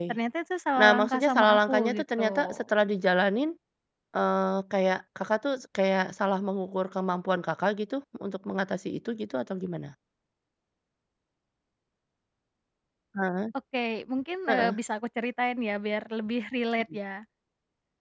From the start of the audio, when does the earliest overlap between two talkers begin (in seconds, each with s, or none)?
0.8 s